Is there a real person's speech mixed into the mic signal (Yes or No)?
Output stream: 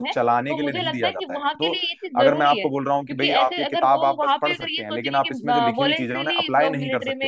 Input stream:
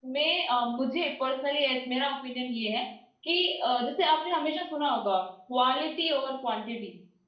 Yes